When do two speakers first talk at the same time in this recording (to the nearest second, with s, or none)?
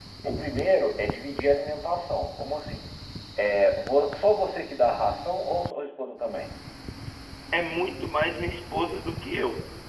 none